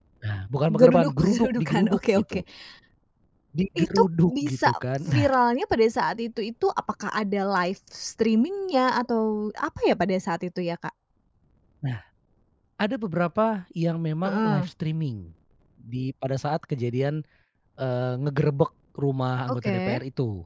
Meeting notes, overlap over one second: present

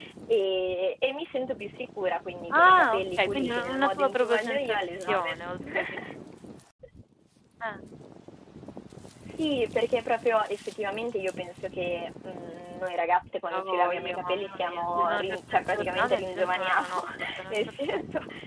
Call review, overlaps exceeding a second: present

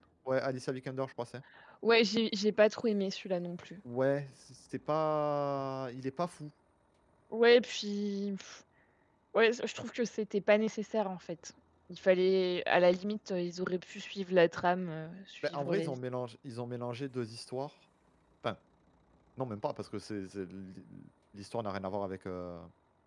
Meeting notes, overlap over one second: none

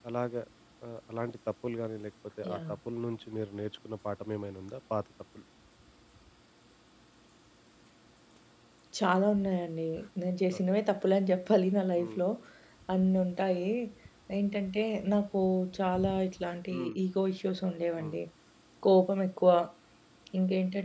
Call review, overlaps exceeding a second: none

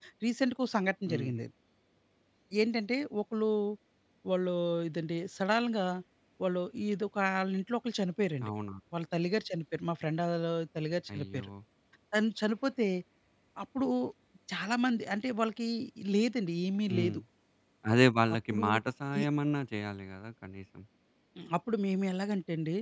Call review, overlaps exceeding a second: none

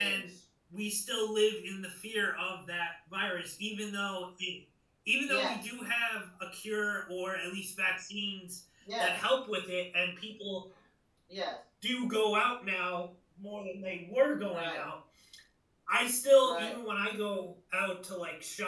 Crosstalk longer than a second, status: none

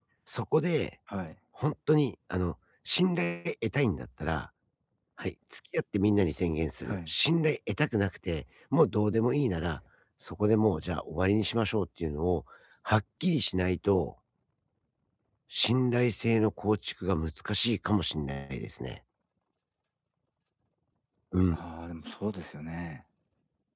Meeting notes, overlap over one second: none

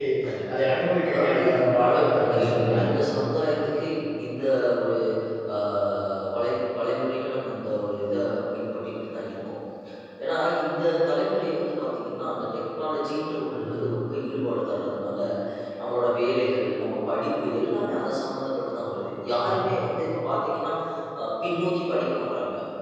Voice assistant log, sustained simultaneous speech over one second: present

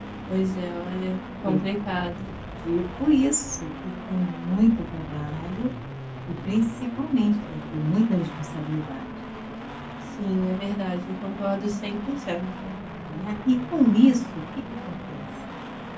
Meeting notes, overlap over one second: none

